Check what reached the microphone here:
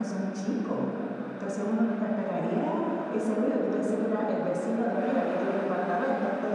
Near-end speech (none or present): none